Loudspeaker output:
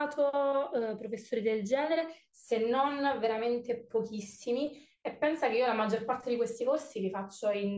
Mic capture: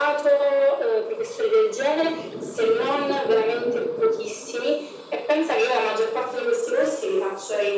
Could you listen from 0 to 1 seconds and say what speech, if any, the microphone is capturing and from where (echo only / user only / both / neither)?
echo only